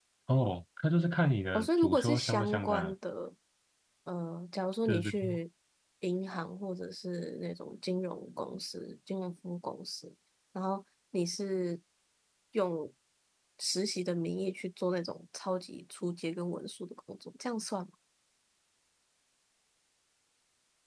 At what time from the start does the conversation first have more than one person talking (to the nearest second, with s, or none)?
2 s